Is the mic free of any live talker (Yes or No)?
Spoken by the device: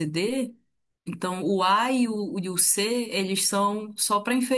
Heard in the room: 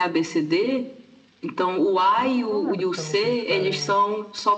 No